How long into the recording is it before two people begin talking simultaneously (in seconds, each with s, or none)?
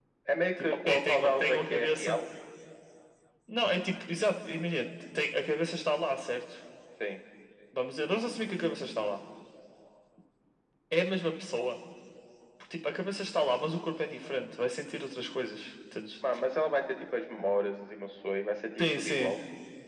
0.6 s